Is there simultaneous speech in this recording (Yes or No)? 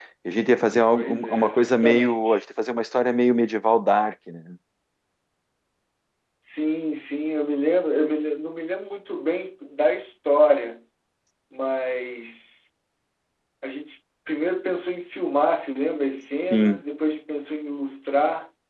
Yes